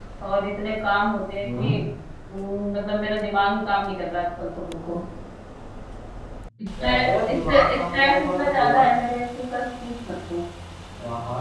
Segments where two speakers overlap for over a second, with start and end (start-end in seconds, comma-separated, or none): 6.8-8.8